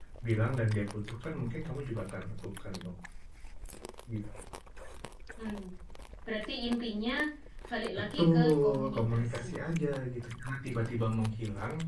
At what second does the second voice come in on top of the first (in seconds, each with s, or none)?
8.0 s